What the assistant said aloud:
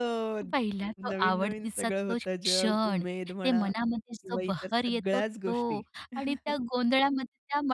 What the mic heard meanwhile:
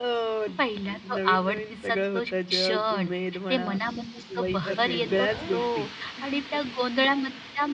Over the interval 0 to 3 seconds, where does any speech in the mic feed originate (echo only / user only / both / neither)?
echo only